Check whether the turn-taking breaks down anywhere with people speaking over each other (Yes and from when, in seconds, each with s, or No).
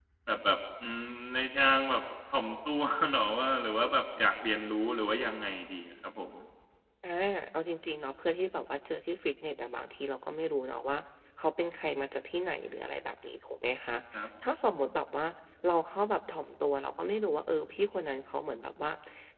No